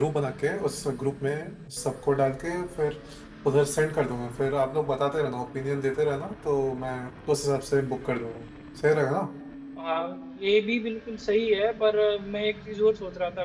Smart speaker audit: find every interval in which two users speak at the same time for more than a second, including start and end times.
none

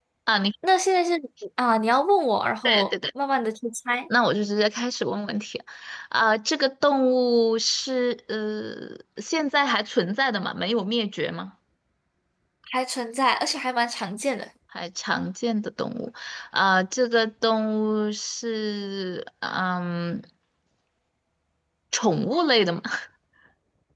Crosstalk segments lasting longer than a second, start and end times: none

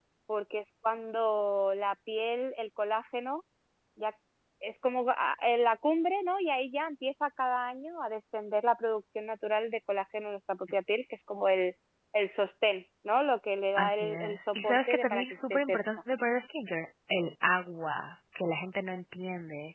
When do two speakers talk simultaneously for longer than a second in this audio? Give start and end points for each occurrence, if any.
13.8-15.8

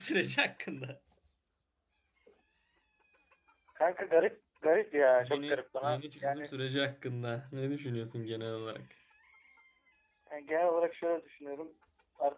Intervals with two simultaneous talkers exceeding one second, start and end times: 5.2-6.5

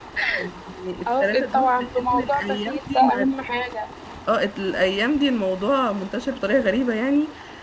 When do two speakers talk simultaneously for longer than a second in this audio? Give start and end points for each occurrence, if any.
1.1-3.2

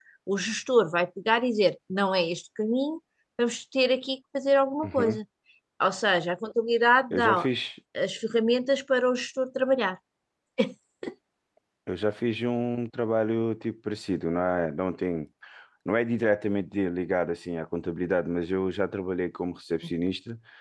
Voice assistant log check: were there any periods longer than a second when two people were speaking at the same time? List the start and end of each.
none

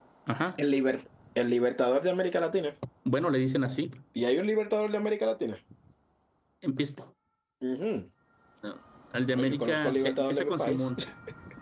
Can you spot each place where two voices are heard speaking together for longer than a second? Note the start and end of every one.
9.3-10.8

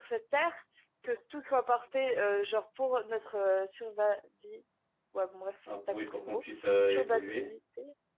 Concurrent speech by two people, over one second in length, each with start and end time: 5.9-7.5

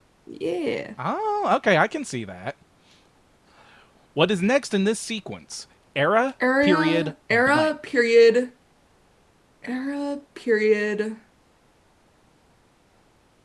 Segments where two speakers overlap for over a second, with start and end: 6.6-8.0

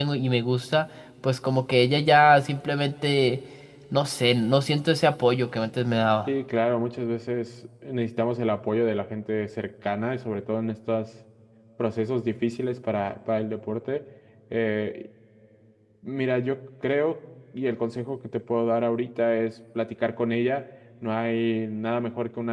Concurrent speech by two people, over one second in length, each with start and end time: none

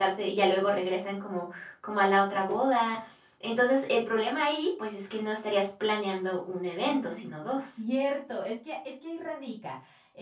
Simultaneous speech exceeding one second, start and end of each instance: none

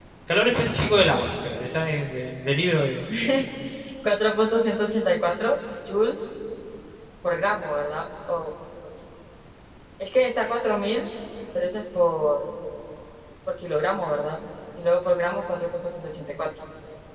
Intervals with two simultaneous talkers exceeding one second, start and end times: none

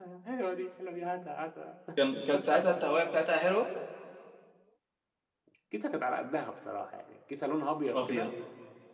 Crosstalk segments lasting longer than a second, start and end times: none

